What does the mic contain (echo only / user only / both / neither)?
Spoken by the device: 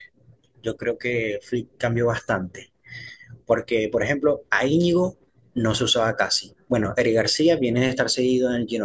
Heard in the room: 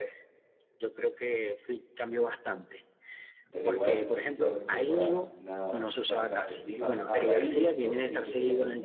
both